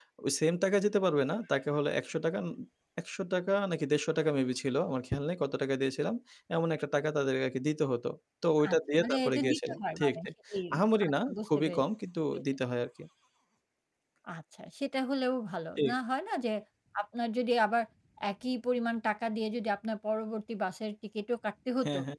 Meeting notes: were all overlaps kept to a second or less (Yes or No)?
No